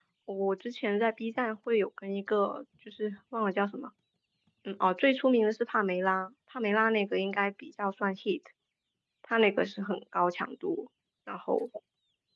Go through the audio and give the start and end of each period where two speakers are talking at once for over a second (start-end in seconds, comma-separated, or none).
none